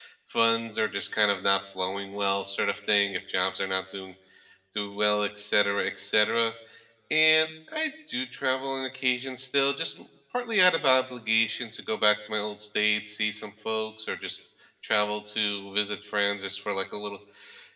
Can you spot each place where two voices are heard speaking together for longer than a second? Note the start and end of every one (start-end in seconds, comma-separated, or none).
none